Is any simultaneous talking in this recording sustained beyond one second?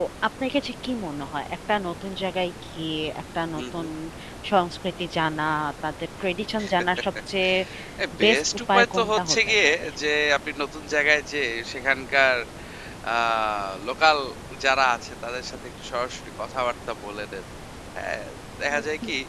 Yes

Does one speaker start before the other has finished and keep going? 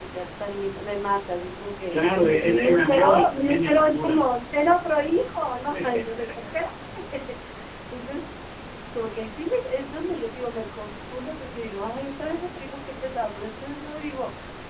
Yes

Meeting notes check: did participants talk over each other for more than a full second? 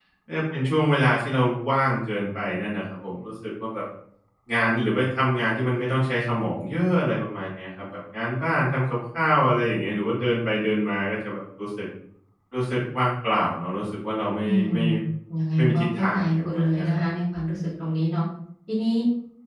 Yes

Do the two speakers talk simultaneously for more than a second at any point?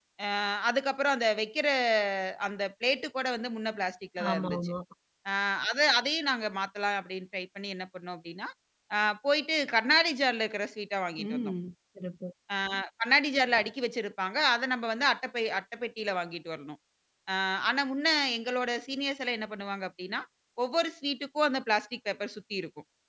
No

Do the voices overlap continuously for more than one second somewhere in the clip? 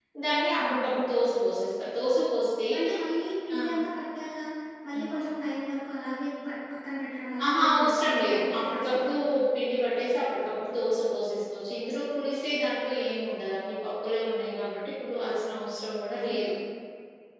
Yes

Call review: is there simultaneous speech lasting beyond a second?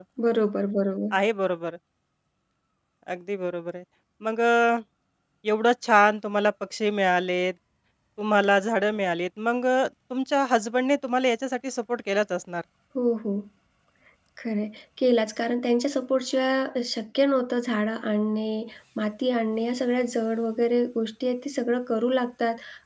No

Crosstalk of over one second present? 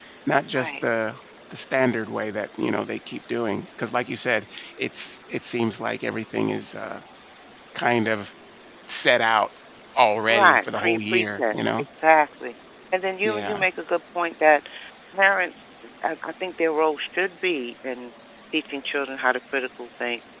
Yes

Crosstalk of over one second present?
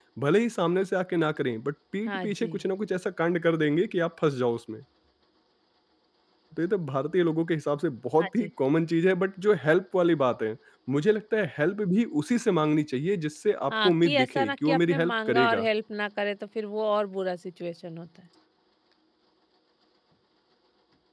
Yes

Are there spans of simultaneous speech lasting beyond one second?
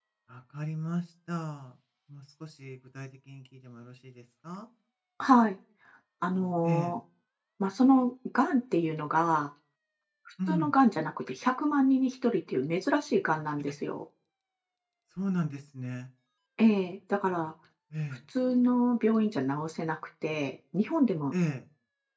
No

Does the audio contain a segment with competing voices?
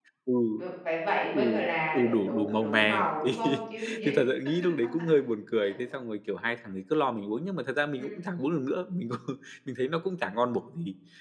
Yes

